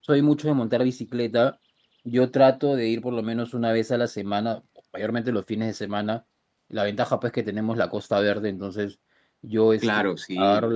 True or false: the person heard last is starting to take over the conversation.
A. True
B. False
B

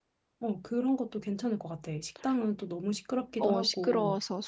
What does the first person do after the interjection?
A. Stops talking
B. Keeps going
A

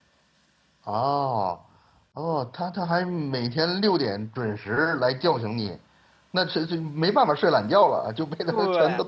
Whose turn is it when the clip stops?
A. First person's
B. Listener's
B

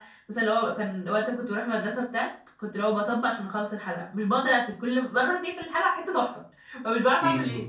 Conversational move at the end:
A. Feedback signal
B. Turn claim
B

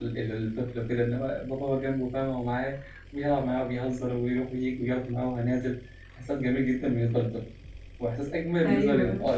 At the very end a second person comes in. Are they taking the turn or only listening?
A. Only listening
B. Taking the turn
A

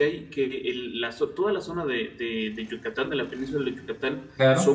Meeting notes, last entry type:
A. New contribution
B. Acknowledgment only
B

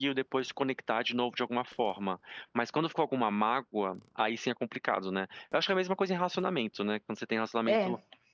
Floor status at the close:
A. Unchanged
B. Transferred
A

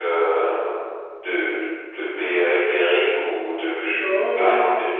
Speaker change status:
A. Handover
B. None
A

